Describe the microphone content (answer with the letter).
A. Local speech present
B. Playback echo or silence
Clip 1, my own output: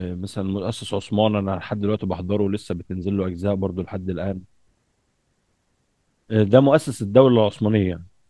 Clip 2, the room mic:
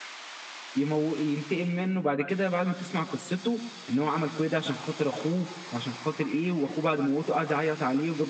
A